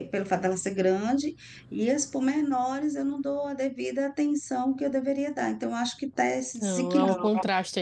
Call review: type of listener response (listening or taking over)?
taking over